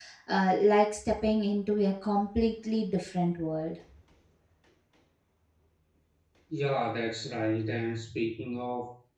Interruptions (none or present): none